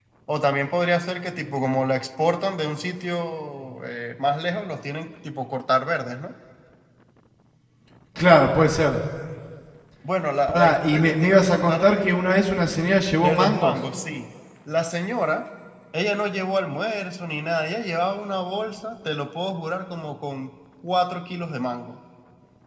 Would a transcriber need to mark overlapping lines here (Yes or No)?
Yes